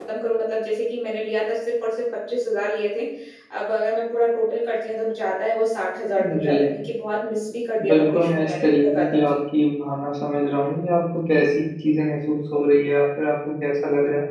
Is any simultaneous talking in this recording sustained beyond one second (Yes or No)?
Yes